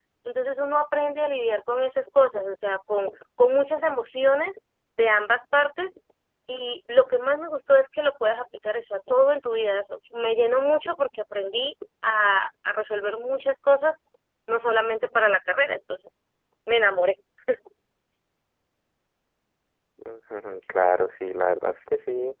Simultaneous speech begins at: none

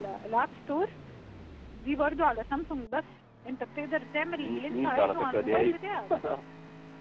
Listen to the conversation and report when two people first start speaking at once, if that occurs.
4.3 s

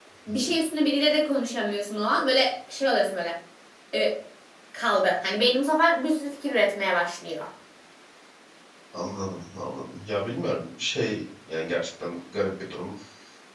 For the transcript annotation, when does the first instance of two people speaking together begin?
none

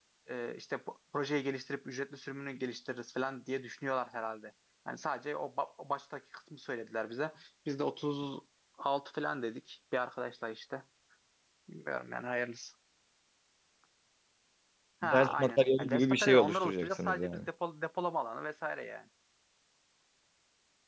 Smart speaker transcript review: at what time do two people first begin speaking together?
15.0 s

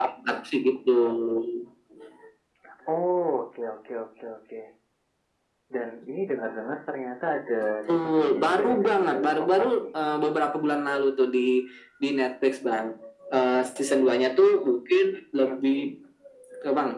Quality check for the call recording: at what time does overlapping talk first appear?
7.9 s

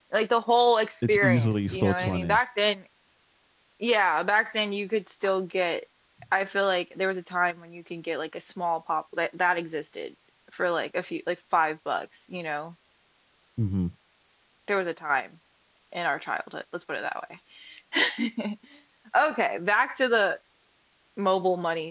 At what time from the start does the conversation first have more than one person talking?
1.1 s

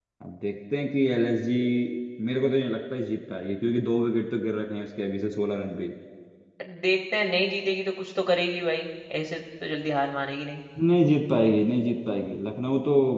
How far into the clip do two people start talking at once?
none

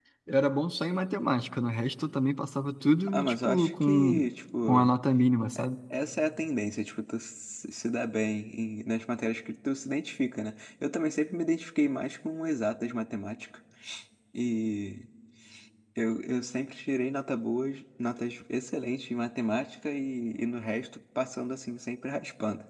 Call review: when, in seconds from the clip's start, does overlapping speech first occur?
3.1 s

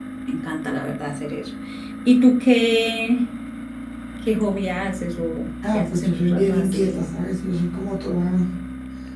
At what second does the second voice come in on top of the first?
5.6 s

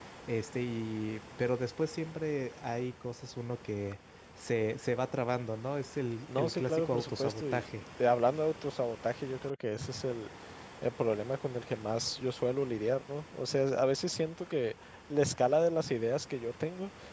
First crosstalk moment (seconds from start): 6.3 s

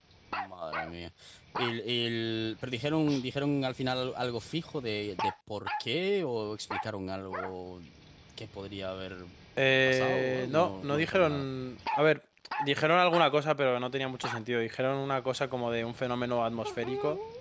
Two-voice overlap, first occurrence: 9.9 s

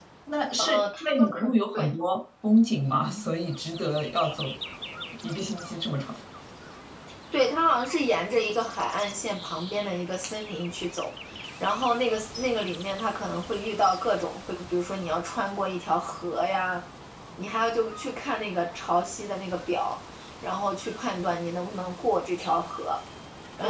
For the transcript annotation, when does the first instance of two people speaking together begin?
0.6 s

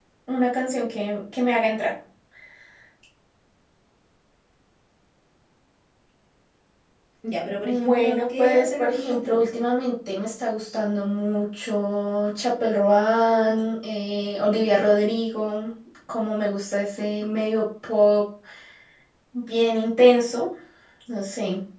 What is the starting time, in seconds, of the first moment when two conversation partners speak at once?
7.6 s

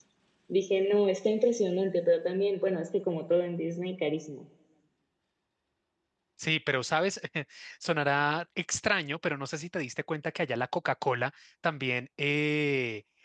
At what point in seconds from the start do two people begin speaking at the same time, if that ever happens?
none

